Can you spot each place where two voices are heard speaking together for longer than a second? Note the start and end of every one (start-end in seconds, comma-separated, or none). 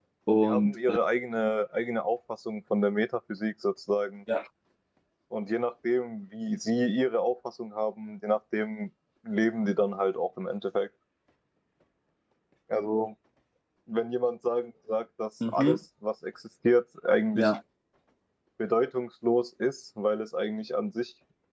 none